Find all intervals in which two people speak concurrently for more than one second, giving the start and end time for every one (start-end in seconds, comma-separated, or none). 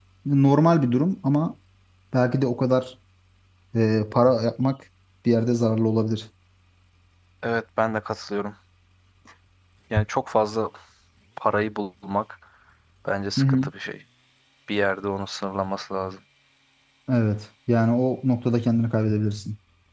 none